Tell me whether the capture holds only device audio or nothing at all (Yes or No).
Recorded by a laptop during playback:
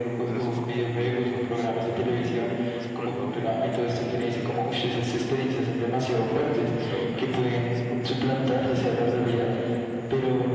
No